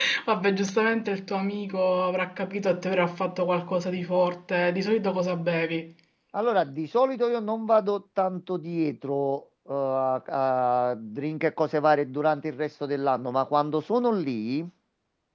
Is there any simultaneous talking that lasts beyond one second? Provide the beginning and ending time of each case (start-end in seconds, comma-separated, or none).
none